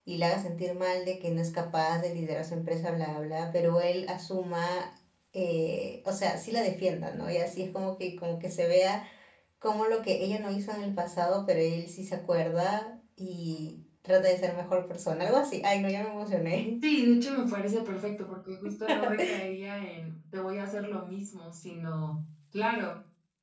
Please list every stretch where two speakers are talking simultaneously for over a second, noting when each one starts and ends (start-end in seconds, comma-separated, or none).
none